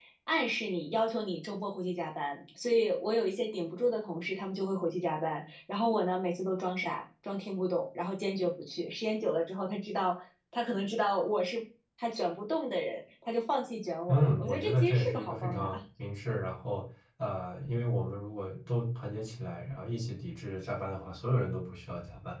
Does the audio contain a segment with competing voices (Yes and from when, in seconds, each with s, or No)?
Yes, from 14.1 s